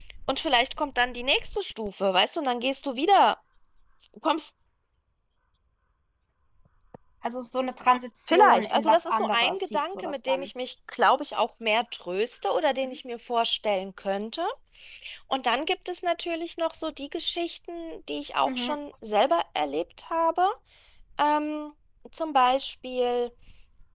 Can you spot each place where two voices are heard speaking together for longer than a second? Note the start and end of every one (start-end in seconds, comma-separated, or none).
8.3-10.5